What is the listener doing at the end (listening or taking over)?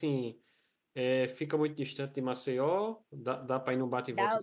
taking over